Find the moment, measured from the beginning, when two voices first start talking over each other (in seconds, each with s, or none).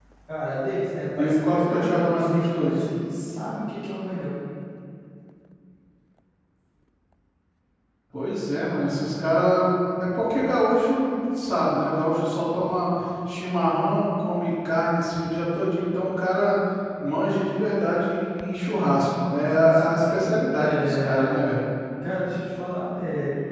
1.2 s